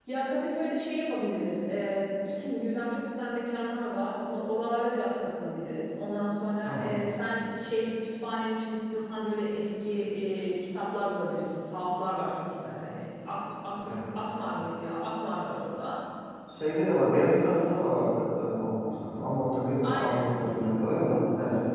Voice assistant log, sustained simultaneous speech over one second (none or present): none